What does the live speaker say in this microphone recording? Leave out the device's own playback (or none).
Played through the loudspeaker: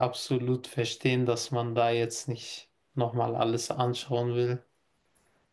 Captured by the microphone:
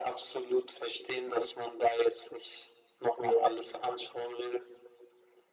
ja.